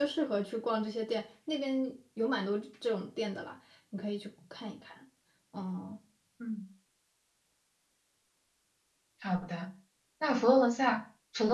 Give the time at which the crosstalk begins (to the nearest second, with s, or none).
none